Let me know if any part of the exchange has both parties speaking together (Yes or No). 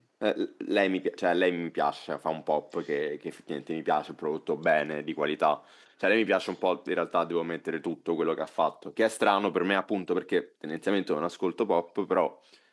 No